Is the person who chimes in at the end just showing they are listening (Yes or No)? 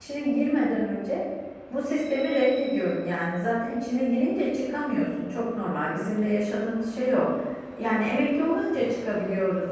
Yes